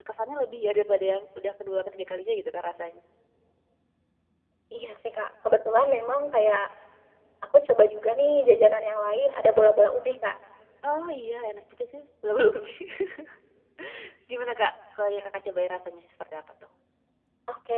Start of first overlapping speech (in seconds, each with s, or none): none